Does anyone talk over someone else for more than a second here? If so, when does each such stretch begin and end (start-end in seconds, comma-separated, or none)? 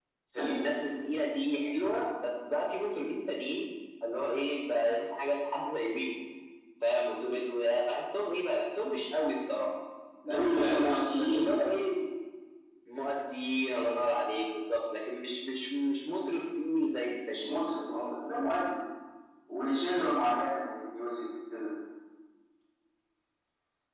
none